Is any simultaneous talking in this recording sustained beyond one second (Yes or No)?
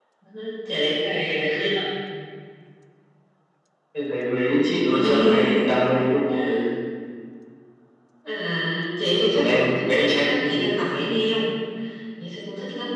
Yes